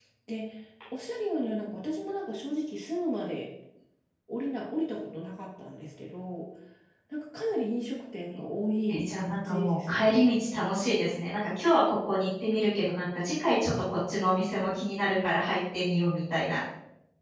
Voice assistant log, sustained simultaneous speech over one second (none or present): present